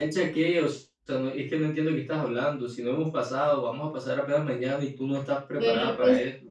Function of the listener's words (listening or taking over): taking over